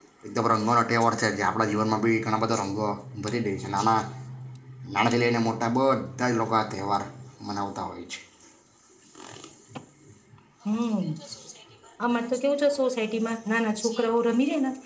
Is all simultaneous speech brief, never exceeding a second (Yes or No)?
Yes